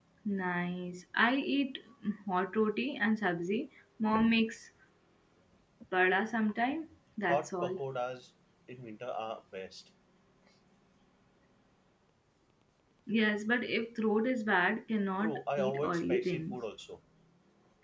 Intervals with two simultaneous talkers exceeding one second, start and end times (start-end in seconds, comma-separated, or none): 15.2-16.6